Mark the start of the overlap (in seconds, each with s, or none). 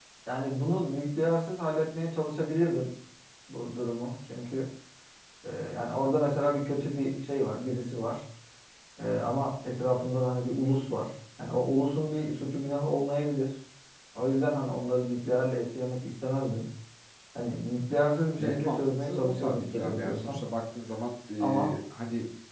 18.4 s